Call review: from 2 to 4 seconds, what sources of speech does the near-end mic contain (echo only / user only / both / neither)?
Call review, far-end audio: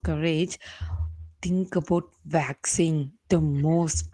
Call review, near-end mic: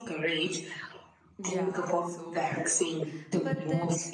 both